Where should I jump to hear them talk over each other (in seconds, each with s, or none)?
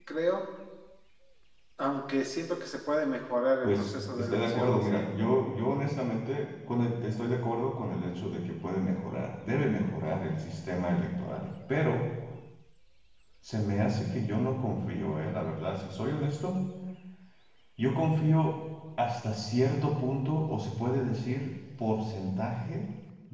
3.6 s